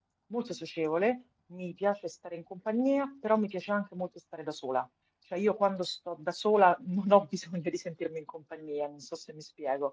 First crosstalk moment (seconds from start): none

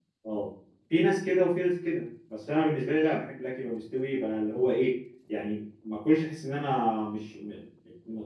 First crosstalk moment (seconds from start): none

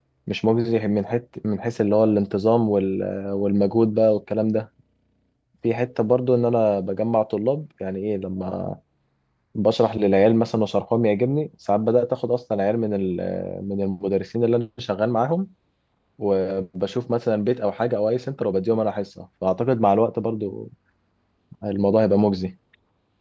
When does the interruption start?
none

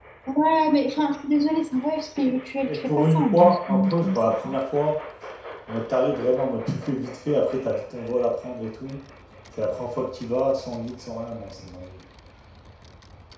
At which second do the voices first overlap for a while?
2.7 s

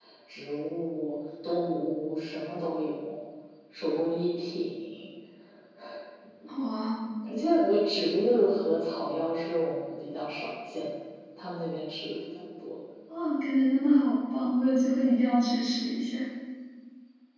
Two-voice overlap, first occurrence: none

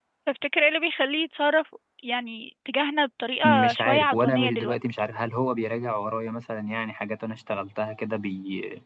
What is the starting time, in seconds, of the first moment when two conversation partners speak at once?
3.4 s

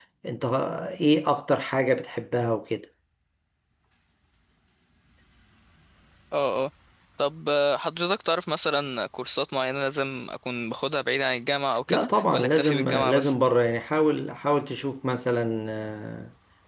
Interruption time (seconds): 11.9 s

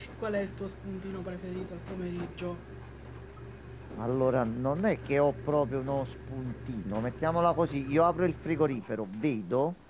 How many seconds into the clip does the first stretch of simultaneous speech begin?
none

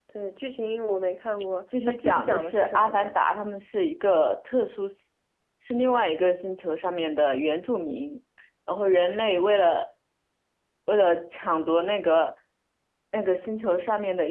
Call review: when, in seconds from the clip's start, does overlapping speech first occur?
1.7 s

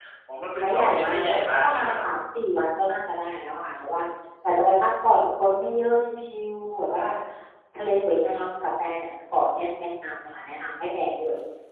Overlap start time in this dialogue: 0.6 s

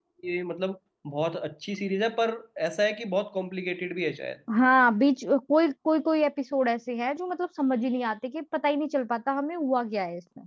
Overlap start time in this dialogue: none

